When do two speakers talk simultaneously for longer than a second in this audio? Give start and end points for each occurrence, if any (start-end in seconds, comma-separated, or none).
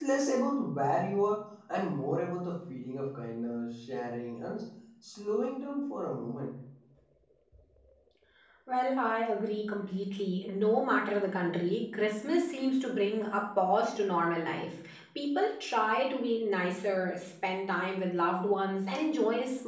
none